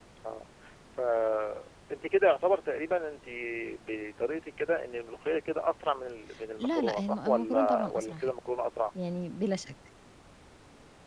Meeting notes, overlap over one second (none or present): present